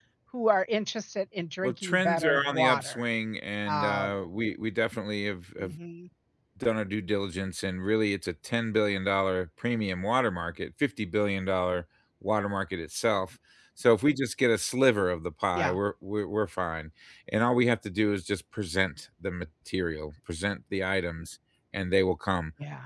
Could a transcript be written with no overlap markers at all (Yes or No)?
No